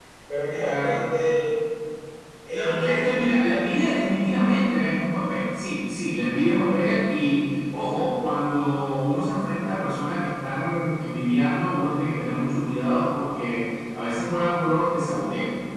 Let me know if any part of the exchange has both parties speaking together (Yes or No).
Yes